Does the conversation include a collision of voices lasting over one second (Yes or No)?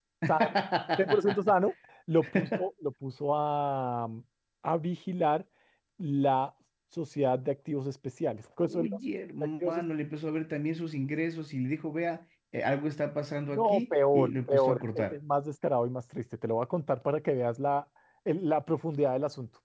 Yes